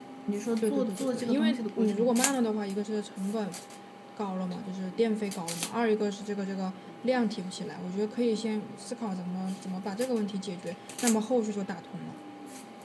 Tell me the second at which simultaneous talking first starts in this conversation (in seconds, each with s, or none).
0.6 s